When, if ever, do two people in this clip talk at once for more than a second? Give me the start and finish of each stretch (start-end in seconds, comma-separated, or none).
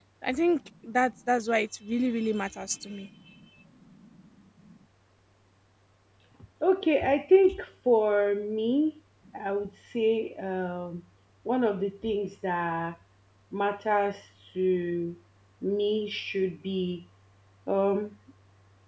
none